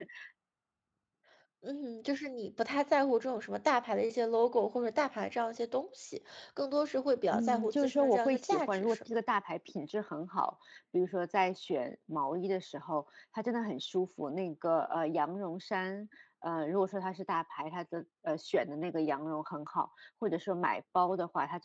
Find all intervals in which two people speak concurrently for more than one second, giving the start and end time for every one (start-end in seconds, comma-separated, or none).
7.3-9.0